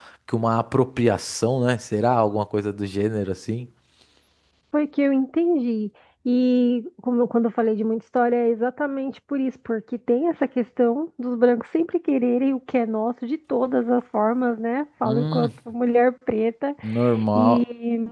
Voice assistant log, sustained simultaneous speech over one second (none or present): none